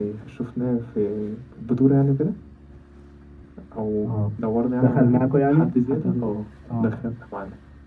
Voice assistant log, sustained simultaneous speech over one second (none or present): present